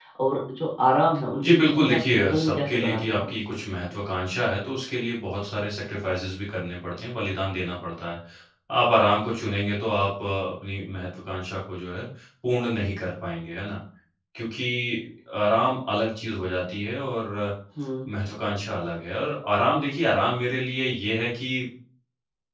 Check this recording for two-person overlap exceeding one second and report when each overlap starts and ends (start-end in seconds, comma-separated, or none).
1.4-3.3